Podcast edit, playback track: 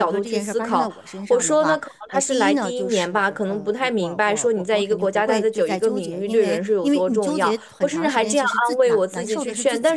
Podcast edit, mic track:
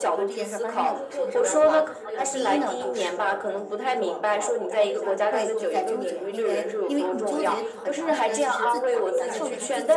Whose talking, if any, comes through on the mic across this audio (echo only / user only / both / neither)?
both